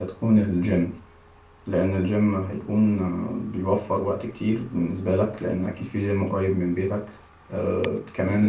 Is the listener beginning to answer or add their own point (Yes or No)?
No